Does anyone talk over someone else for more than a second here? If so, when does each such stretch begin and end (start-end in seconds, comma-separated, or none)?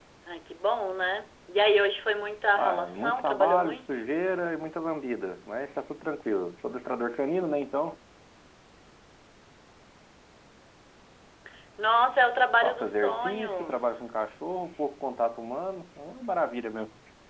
2.5-4.0, 12.6-14.0